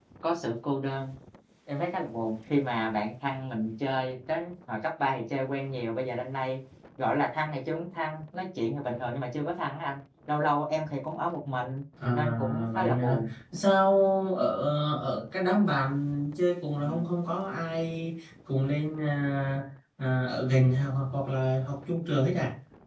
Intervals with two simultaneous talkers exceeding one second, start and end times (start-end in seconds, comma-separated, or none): 12.1-13.3